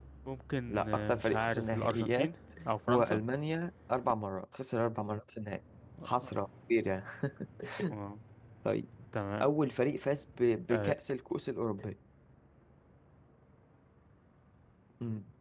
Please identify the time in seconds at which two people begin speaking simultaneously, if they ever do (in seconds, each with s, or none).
0.7 s